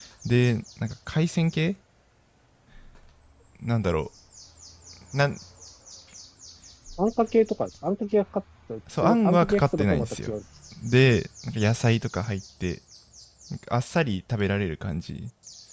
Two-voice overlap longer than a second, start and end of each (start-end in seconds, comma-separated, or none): 9.0-10.3